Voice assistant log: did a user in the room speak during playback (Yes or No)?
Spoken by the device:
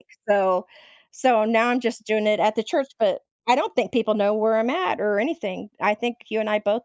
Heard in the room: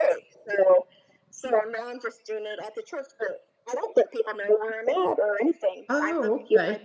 Yes